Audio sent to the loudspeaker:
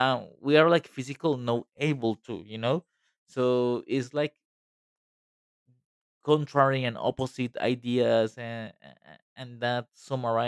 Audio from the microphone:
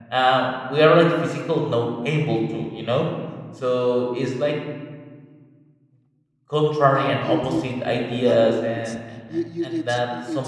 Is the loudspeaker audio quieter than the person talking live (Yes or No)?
No